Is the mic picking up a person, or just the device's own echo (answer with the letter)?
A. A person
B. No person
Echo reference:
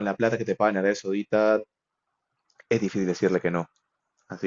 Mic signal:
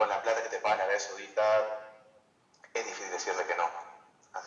B